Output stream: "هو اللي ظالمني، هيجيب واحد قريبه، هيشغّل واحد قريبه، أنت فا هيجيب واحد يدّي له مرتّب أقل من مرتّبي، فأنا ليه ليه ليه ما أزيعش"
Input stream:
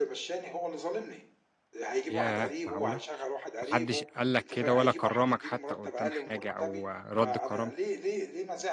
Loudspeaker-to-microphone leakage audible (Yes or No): Yes